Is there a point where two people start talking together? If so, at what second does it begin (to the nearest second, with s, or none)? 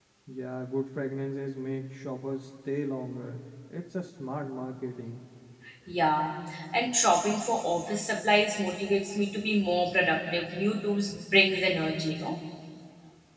none